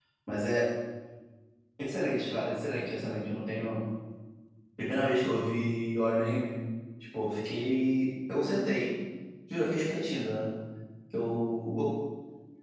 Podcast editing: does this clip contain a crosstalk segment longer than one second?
No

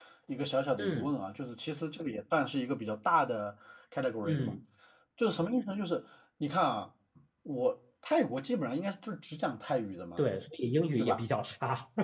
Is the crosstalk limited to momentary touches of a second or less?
Yes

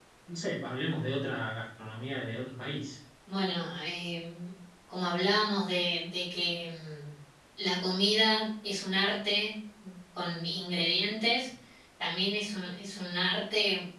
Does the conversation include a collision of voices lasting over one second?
No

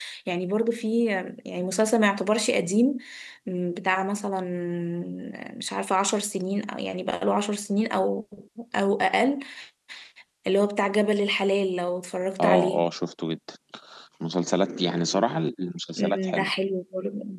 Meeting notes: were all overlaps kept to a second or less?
Yes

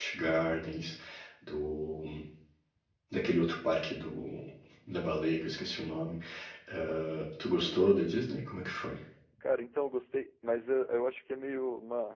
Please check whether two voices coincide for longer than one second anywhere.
No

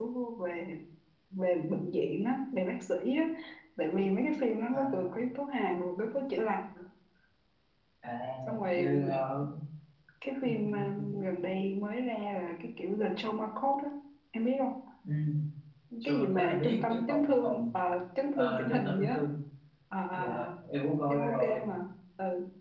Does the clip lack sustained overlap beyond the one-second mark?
No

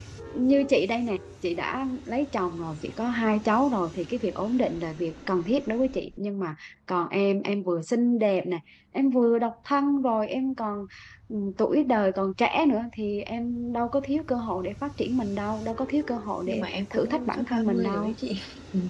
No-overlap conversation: No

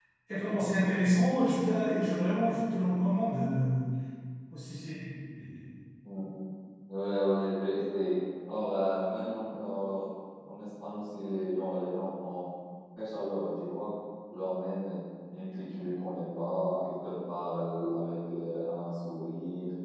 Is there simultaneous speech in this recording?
No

